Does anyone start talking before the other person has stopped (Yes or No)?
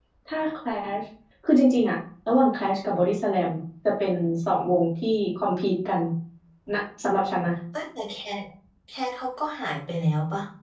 No